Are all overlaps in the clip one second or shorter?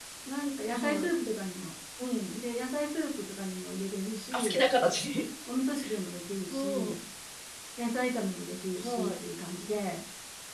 Yes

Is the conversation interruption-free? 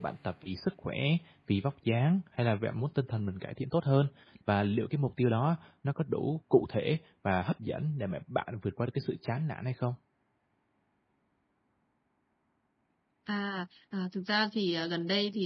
Yes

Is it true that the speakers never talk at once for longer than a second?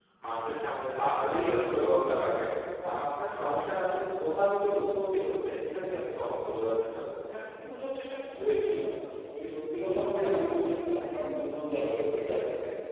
Yes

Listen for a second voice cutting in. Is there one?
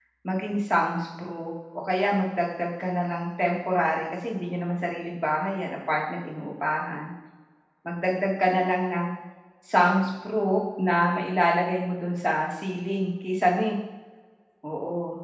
No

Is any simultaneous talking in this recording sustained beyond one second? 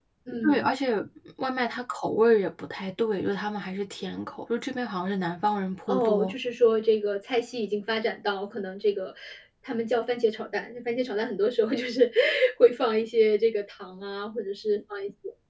No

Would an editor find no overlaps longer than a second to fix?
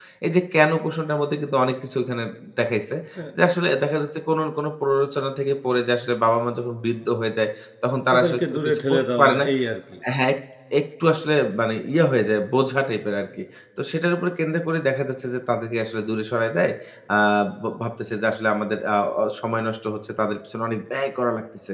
No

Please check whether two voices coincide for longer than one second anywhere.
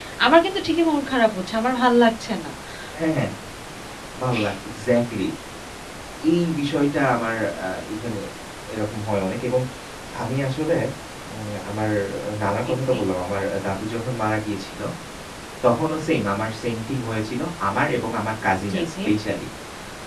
No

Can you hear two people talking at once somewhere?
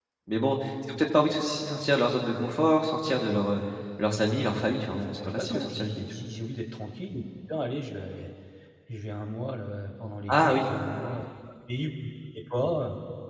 Yes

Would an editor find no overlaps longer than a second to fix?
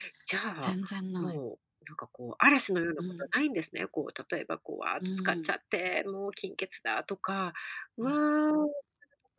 Yes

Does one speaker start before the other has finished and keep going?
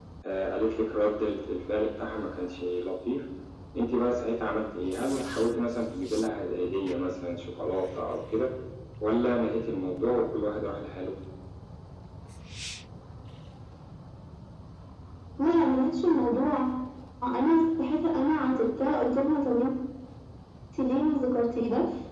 No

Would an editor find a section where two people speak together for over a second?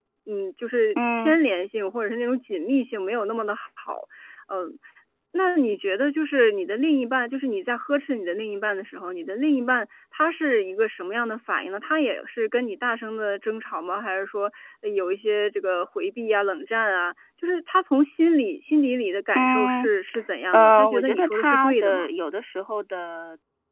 Yes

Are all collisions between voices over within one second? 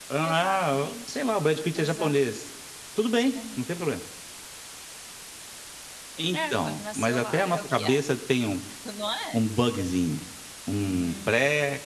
No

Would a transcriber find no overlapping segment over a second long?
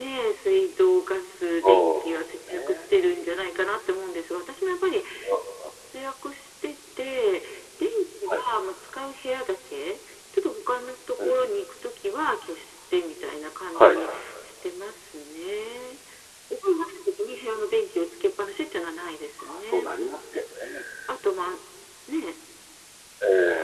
Yes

